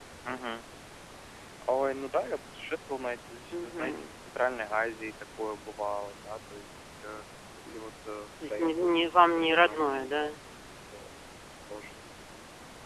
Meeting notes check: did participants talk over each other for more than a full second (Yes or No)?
Yes